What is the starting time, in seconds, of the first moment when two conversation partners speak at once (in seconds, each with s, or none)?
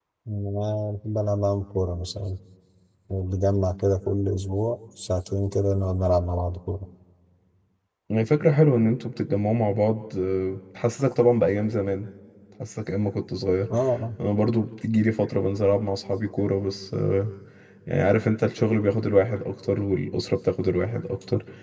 none